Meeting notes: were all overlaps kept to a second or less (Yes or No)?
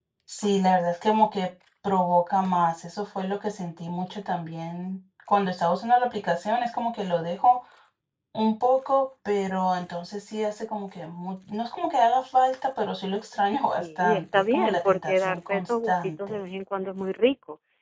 No